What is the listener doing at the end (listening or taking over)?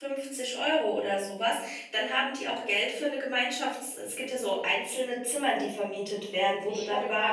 taking over